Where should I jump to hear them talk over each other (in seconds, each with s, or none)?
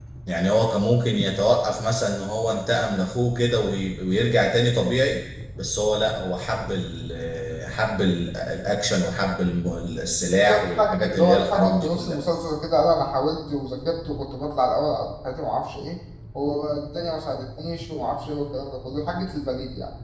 10.4 s